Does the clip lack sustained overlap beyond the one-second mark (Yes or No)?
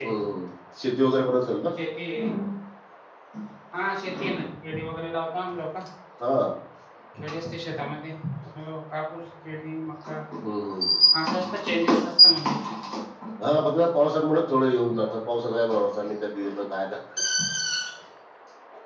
Yes